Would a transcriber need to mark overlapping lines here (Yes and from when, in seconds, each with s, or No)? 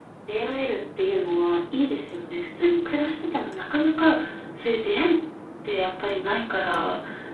No